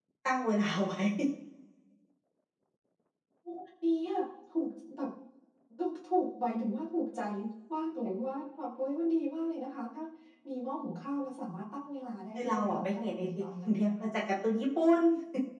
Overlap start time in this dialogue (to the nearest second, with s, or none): 12 s